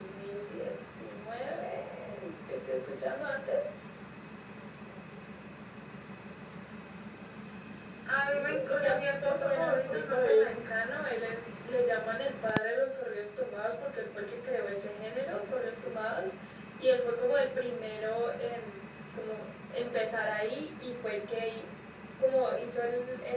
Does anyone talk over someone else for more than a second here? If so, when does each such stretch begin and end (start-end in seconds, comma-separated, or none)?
8.2-10.6